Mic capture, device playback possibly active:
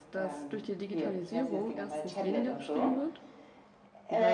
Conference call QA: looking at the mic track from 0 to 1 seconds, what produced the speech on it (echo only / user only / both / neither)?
both